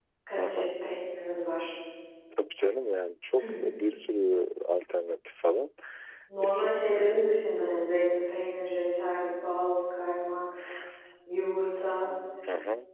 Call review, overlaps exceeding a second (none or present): none